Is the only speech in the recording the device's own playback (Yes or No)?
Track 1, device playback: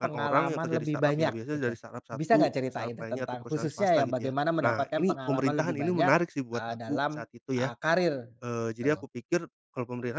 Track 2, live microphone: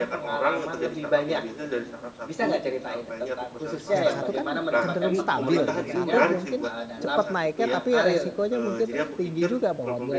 No